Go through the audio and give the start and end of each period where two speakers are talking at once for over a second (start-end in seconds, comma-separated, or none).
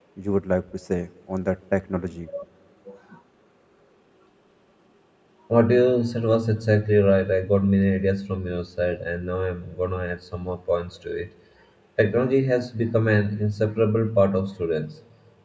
none